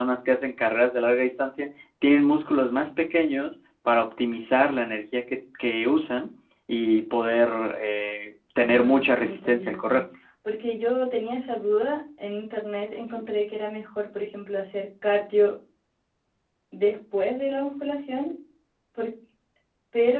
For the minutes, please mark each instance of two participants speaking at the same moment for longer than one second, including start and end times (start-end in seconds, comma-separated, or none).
8.6-10.0